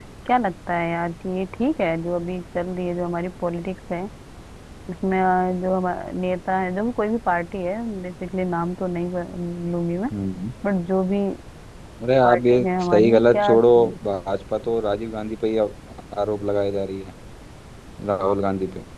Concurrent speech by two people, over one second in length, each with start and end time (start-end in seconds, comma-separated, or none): 12.2-13.5